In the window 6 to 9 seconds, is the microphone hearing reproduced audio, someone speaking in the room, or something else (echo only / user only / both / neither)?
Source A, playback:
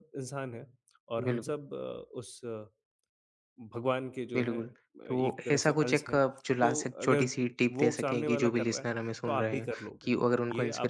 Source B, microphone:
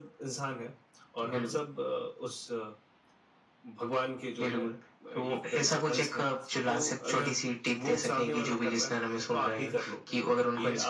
echo only